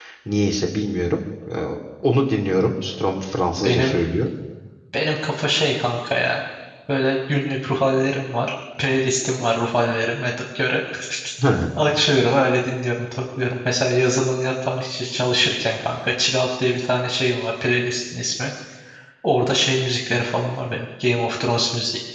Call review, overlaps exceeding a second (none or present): none